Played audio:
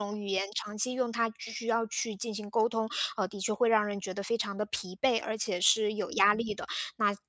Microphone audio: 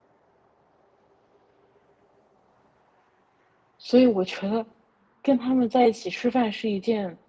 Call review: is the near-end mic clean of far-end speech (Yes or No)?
Yes